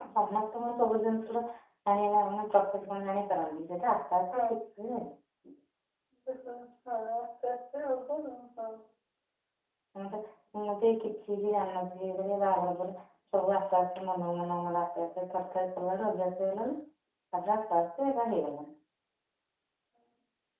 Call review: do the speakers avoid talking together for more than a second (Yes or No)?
Yes